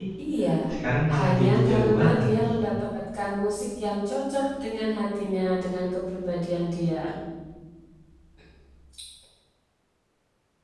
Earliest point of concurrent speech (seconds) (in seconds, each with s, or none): 1.1 s